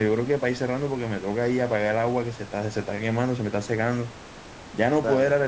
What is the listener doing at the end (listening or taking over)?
listening